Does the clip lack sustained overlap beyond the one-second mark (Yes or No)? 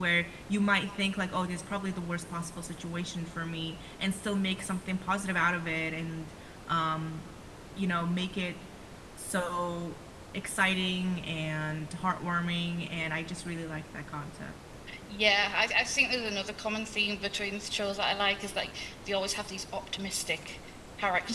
Yes